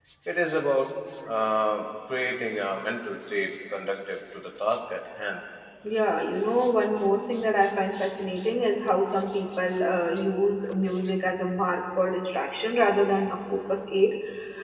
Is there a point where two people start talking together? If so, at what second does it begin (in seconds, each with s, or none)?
none